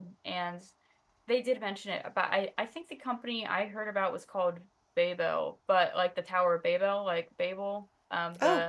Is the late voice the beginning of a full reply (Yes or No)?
Yes